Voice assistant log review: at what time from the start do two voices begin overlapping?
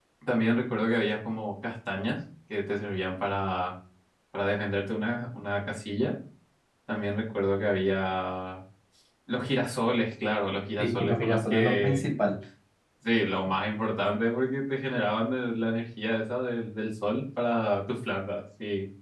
10.8 s

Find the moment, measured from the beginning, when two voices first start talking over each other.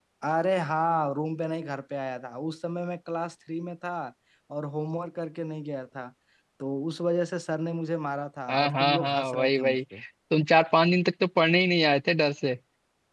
8.5 s

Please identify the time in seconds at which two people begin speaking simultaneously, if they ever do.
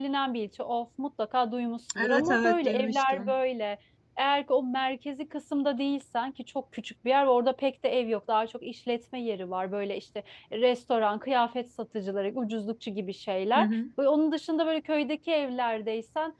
2.0 s

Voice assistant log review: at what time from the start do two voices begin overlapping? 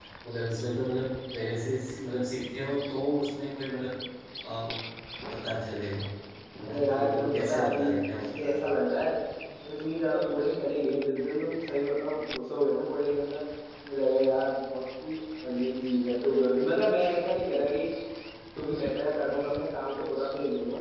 6.7 s

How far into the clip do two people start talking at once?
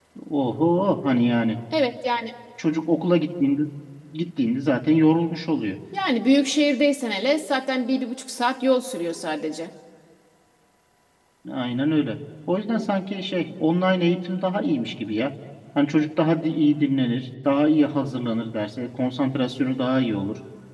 none

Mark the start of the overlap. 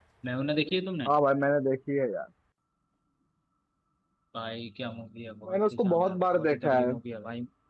5.5 s

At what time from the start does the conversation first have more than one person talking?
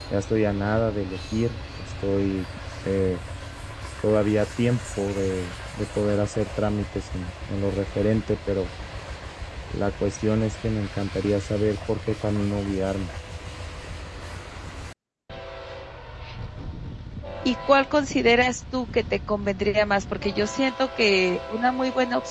none

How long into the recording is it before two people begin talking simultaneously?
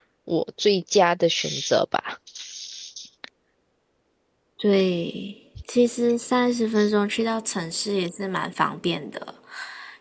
none

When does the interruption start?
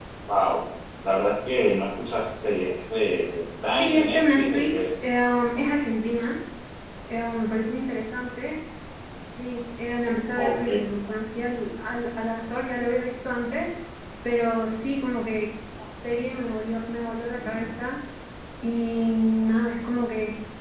3.7 s

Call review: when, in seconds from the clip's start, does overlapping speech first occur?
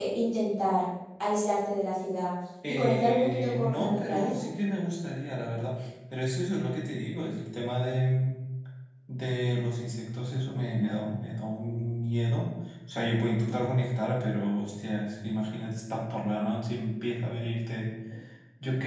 2.6 s

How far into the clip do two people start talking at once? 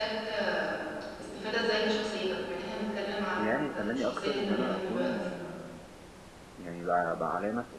3.4 s

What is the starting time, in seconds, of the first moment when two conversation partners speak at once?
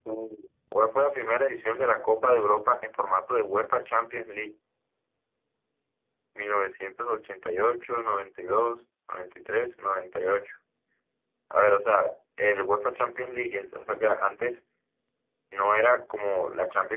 none

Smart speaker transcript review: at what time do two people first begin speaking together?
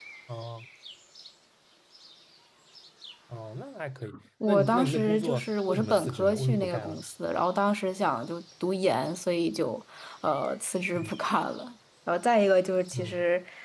4.5 s

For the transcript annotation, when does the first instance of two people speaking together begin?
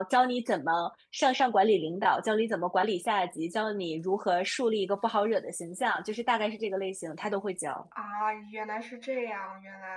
none

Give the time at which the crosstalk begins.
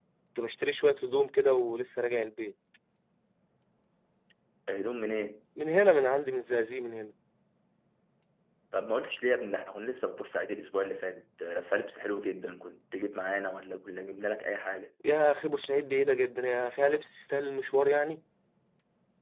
none

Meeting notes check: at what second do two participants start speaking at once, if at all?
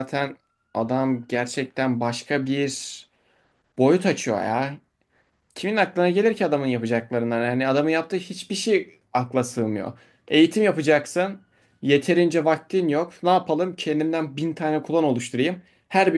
none

